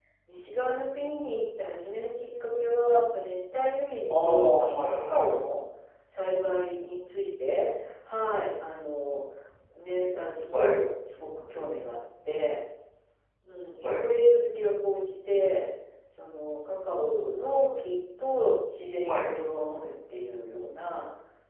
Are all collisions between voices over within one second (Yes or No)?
No